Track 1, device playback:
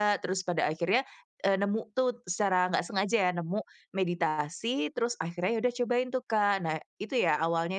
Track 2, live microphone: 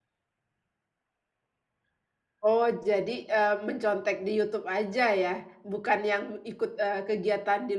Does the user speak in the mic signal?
Yes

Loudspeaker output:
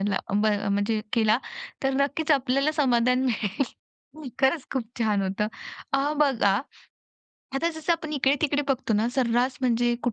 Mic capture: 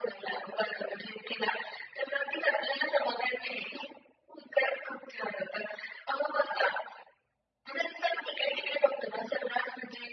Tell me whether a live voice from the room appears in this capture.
No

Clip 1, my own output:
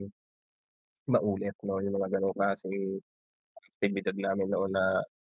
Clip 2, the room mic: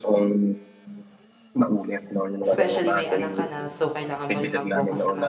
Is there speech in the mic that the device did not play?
Yes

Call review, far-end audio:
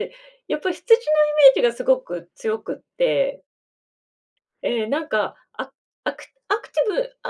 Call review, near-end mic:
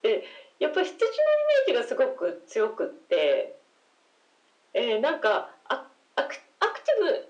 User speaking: No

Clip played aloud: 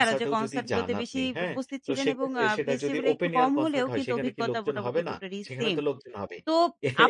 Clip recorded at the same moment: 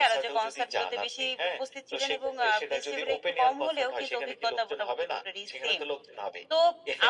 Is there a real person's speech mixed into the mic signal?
No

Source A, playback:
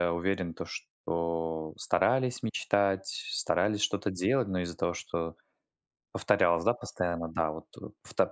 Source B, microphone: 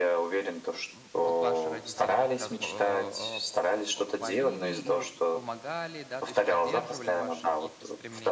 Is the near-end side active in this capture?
Yes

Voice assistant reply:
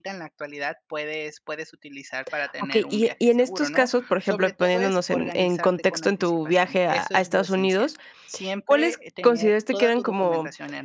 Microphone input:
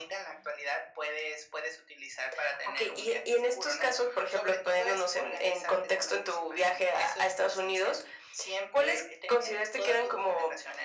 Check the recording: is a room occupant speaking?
No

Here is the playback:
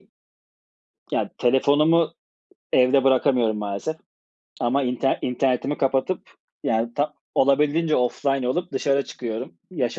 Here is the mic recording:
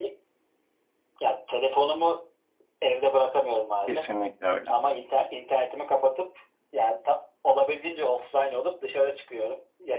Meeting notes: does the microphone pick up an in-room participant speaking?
Yes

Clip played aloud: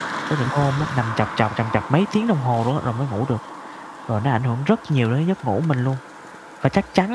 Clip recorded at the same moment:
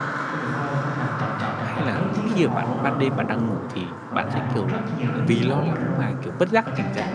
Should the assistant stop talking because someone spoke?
Yes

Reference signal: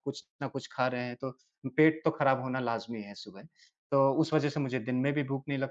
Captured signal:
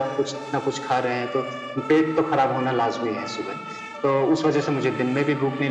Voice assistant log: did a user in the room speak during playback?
No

